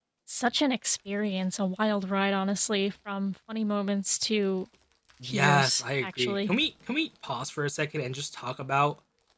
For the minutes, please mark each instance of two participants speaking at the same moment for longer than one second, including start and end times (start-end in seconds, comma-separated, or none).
5.2-6.5